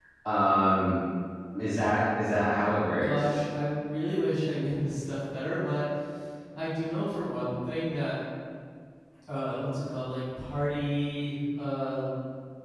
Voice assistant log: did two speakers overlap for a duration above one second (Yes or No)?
No